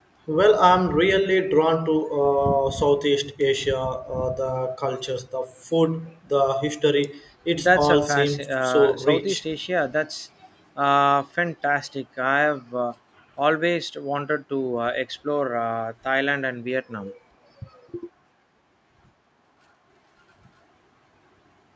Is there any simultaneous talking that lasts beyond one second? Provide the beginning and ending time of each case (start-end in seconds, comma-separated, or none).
7.6-9.4